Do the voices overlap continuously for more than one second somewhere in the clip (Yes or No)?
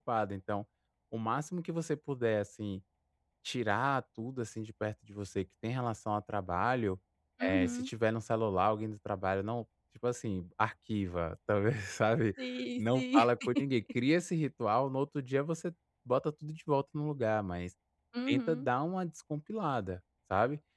No